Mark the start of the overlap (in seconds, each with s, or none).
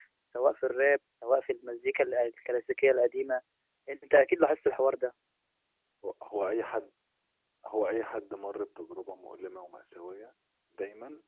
none